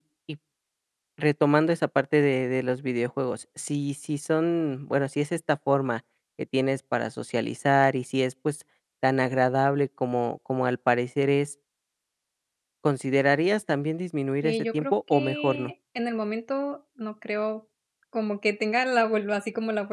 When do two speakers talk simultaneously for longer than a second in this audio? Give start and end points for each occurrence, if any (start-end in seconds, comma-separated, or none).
14.4-15.7